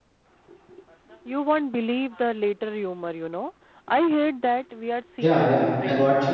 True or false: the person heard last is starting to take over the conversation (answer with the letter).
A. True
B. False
A